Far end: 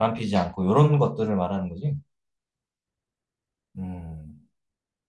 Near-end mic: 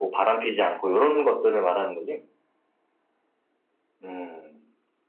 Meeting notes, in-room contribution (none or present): none